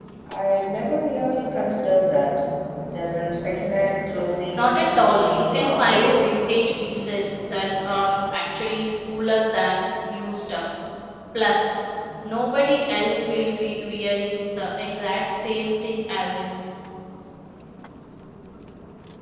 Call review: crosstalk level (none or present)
present